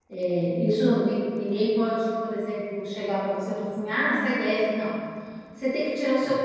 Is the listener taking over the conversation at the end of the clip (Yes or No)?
No